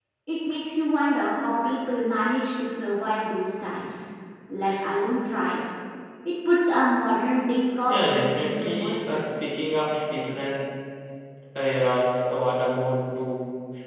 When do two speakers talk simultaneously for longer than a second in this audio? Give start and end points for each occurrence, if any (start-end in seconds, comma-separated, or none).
7.9-9.2